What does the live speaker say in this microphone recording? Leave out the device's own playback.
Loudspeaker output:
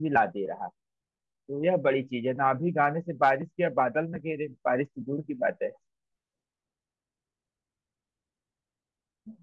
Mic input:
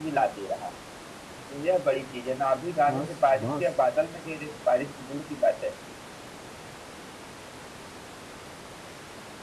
पास बास

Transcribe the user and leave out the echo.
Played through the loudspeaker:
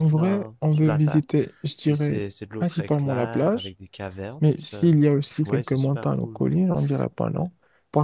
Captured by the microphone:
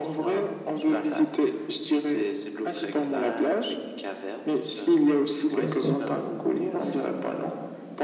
d'accord.

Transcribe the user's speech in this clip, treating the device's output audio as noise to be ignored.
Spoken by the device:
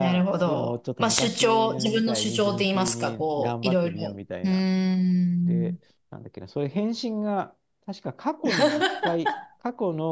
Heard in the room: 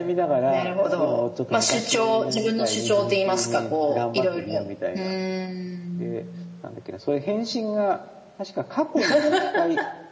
none

